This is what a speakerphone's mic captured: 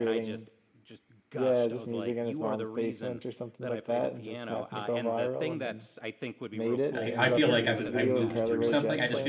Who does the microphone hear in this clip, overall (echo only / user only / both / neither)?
both